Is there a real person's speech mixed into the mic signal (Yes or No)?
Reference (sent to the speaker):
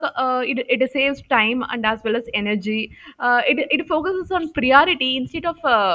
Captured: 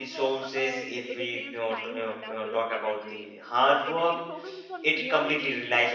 Yes